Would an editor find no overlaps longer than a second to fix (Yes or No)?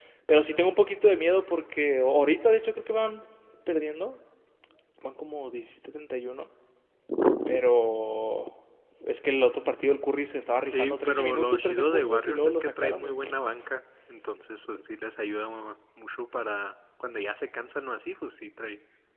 No